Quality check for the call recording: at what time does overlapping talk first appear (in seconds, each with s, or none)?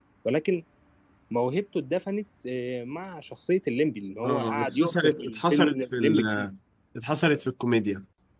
4.2 s